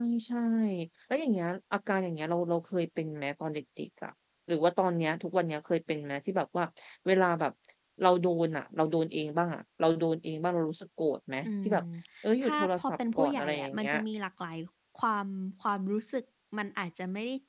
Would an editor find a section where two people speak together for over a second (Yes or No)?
Yes